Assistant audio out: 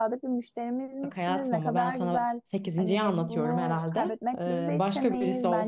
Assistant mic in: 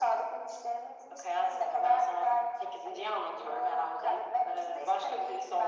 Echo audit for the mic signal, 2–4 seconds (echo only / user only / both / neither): echo only